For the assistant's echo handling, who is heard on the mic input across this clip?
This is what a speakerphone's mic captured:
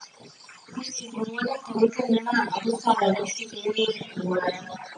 echo only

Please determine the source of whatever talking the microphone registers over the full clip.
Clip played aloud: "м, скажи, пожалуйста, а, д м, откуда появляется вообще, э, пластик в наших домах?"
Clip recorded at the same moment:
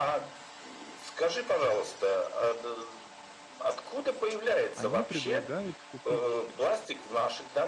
both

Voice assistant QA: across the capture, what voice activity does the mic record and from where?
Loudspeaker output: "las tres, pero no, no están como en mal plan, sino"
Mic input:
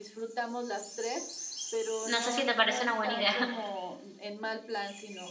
both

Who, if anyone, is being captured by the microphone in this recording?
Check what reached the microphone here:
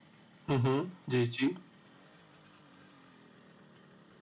user only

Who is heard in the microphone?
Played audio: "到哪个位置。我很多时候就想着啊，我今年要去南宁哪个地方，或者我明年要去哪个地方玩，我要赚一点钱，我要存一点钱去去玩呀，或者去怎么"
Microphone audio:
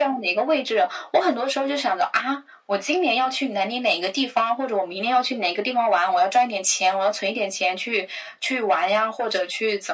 echo only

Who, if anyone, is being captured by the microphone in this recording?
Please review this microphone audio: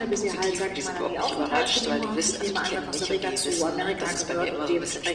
echo only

